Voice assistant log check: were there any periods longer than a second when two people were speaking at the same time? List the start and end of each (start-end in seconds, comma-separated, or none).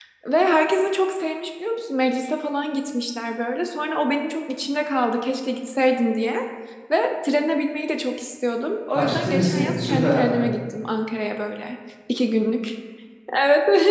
8.9-10.3